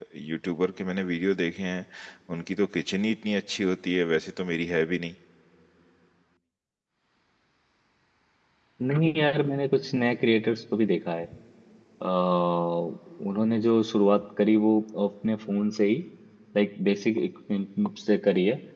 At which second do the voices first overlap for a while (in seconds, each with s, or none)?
none